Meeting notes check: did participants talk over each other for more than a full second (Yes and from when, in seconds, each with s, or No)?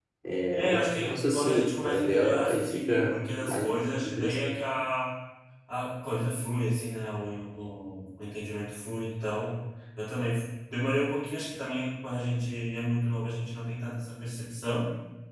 Yes, from 0.5 s